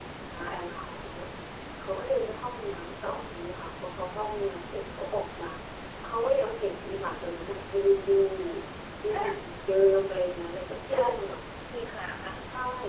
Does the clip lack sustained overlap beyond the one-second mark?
Yes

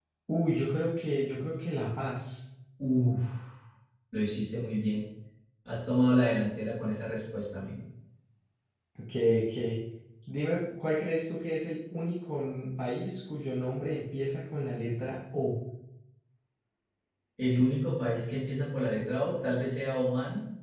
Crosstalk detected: No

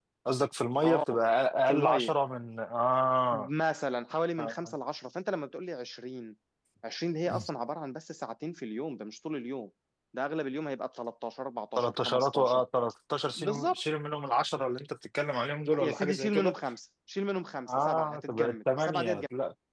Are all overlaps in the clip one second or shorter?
No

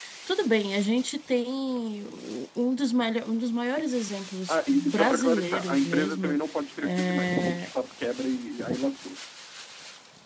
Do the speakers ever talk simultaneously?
Yes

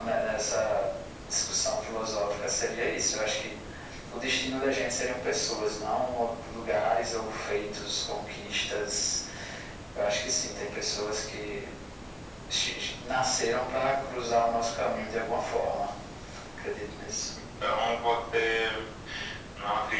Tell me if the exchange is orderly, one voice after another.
Yes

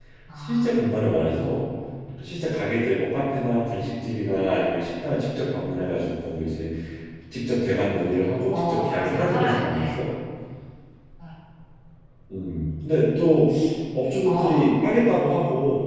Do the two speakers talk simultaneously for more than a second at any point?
Yes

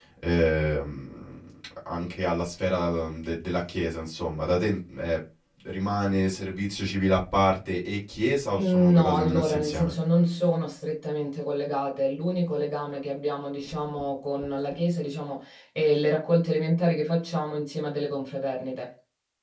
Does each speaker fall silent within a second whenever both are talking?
No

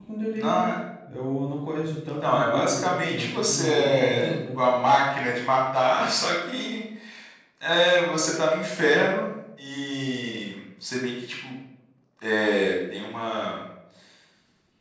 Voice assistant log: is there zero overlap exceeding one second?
No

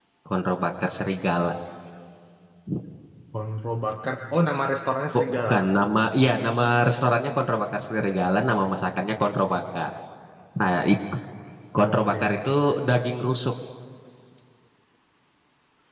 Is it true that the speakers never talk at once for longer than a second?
Yes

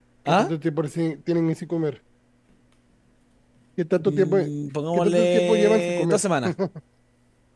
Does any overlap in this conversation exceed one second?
Yes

